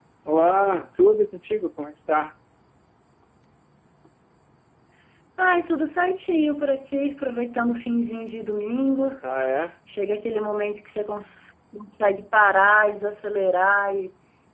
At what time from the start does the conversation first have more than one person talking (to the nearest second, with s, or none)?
none